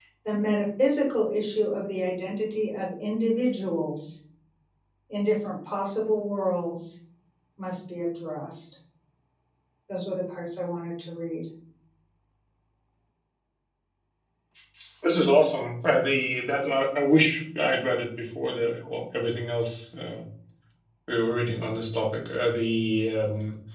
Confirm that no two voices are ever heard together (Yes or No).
Yes